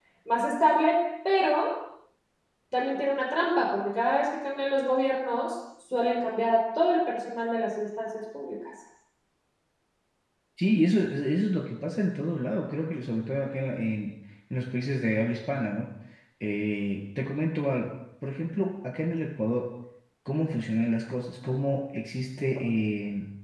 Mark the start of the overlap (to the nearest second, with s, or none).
none